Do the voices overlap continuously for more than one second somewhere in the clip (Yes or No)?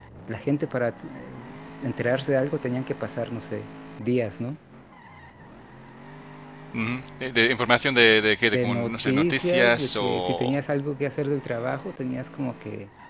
Yes